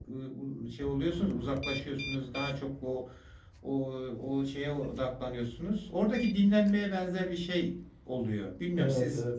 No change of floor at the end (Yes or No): No